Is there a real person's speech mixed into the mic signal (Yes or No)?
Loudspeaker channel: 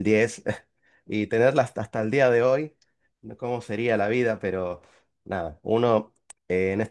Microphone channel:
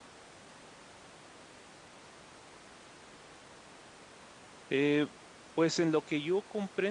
Yes